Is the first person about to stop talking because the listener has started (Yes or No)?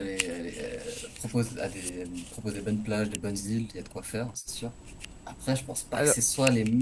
No